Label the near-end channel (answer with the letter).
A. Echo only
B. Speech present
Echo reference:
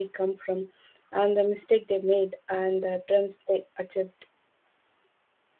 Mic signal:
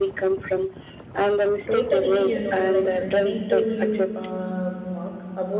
B